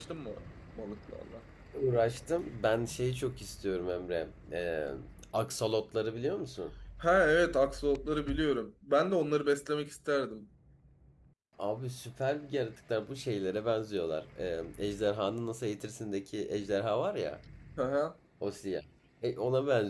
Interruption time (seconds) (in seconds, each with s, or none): none